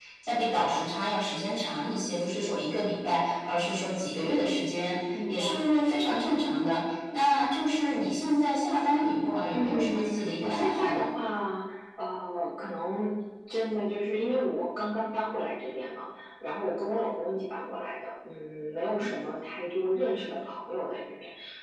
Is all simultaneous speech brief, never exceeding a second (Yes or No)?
No